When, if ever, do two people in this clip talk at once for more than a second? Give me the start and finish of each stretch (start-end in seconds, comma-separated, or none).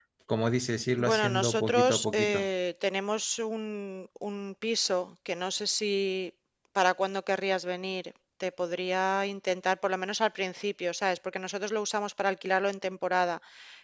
1.0-2.5